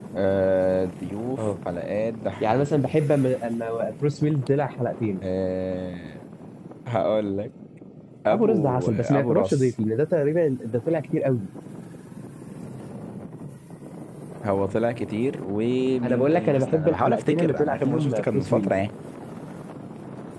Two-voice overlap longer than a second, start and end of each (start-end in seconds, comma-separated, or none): 8.3-9.7, 16.0-18.7